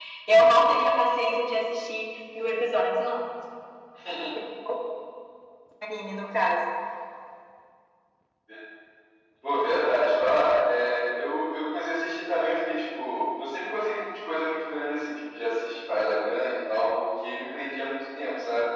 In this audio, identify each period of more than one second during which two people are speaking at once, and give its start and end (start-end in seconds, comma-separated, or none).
none